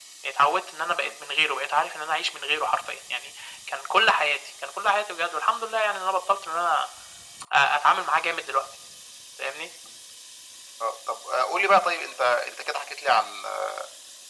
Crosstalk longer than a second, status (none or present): none